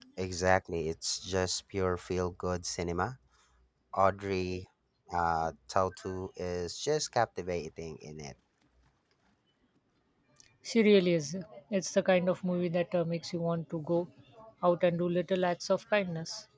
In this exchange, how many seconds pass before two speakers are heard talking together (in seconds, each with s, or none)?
none